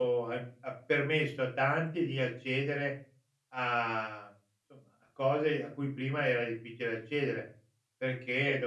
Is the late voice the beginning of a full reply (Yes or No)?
No